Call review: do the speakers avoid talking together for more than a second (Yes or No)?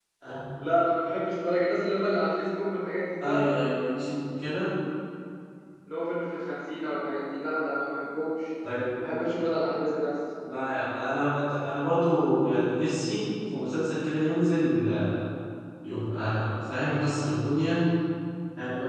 Yes